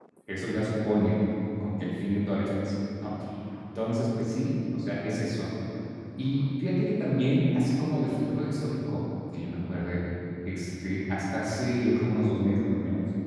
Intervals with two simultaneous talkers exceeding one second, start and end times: none

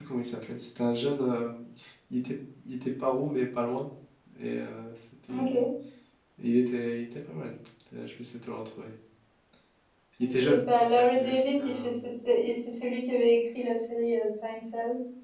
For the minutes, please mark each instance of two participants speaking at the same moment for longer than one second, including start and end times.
10.2-11.9

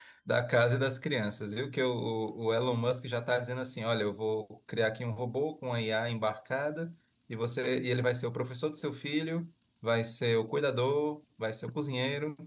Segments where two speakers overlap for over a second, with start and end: none

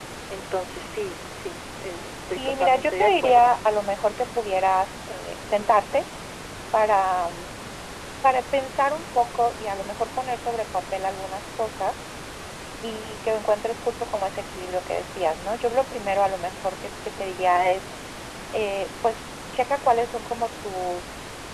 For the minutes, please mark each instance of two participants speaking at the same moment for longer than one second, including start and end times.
2.2-3.5

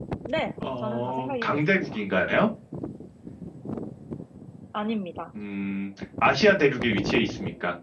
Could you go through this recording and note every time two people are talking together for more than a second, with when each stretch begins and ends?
0.8-2.0

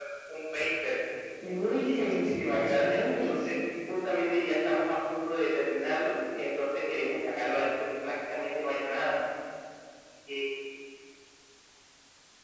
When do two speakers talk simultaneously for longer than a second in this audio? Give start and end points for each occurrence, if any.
1.5-3.5

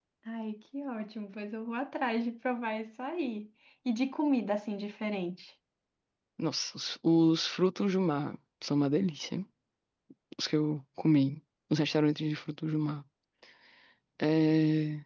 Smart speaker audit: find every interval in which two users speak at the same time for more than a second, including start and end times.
none

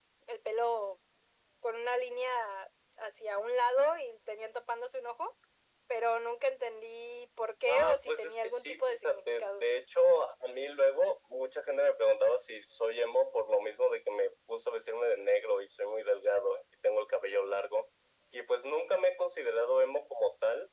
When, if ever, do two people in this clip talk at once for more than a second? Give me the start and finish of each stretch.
7.7-9.6

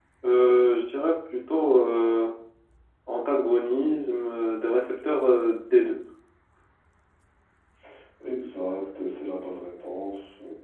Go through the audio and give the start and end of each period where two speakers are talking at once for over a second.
none

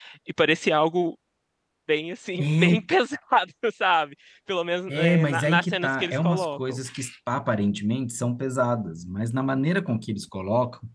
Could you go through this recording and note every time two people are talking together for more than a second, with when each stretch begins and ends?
4.9-6.8

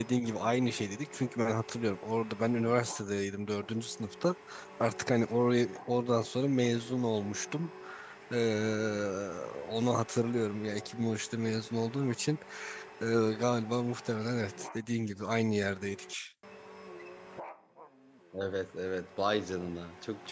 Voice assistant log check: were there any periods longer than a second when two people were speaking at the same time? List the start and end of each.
none

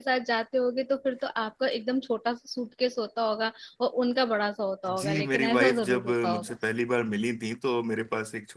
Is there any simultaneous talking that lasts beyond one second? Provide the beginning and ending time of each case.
5.0-6.6

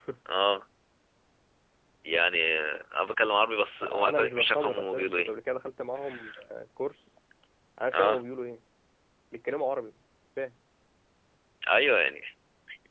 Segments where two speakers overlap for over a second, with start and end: 3.8-5.3

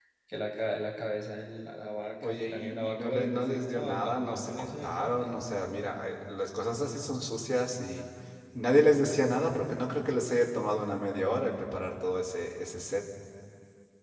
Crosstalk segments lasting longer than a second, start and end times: 2.2-5.3

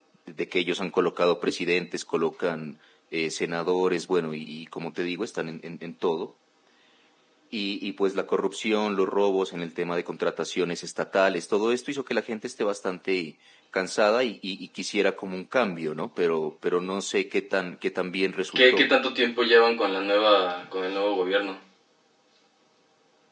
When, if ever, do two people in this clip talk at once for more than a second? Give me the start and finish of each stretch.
none

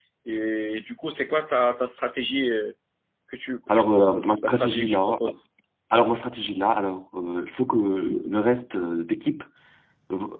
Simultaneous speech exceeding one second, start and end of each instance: 3.7-5.2

